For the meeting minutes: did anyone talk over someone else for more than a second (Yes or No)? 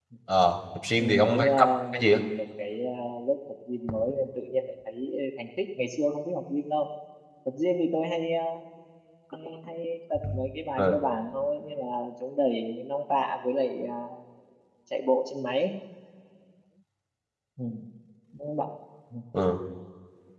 Yes